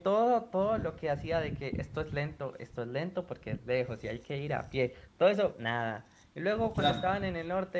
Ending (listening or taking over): listening